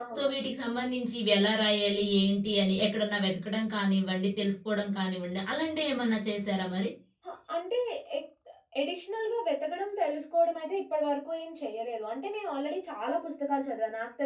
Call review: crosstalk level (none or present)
none